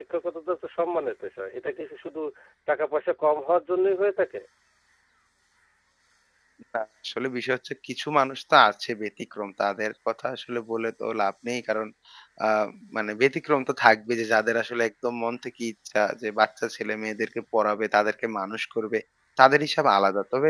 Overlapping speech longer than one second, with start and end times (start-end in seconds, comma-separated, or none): none